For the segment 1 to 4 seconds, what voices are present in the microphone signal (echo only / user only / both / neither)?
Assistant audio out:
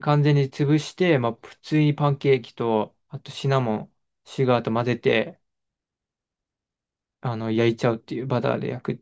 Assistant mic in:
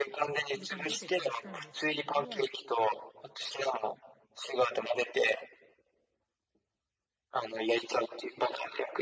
both